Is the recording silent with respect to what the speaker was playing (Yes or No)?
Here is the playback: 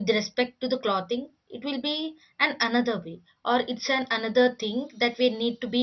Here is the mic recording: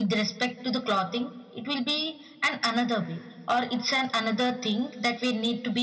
No